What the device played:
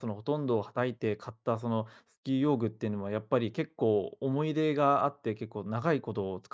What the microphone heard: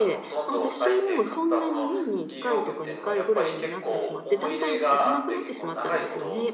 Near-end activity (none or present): present